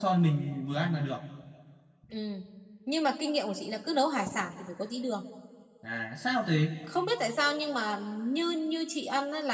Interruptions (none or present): none